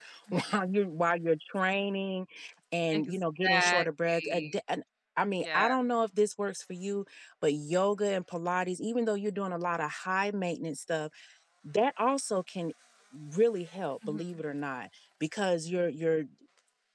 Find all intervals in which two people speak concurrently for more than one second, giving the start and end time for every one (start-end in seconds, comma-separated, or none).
2.9-4.6